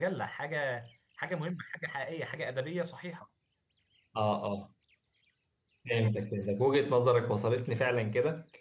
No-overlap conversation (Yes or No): Yes